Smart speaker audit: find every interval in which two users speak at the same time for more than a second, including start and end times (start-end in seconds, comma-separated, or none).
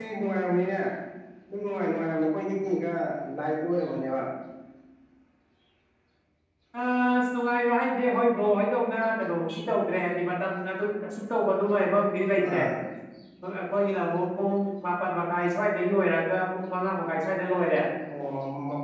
none